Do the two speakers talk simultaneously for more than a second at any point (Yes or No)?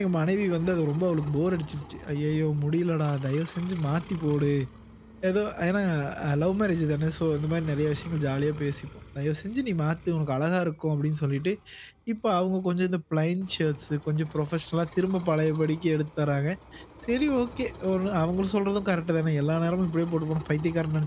No